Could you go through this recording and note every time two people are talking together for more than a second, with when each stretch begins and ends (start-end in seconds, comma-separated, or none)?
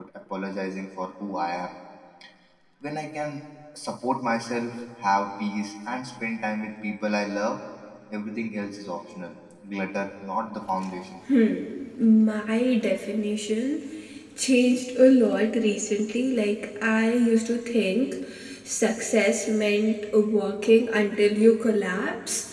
none